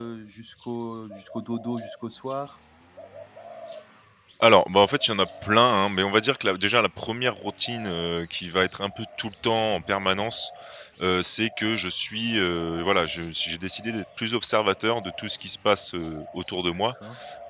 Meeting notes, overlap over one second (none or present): none